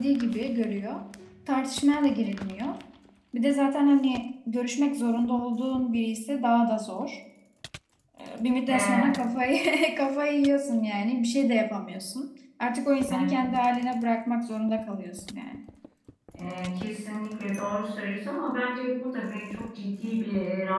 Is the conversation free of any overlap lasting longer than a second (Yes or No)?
Yes